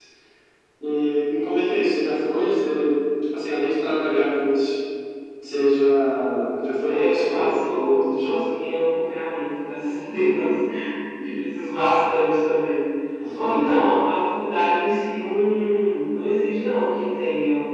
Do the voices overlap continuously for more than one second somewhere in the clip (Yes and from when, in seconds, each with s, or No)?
Yes, from 6.8 s